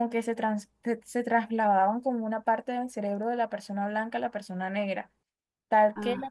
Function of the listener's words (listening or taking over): listening